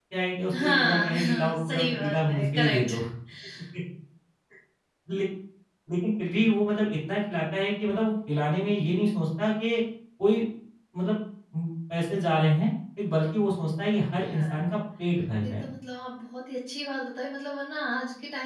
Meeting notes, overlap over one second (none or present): present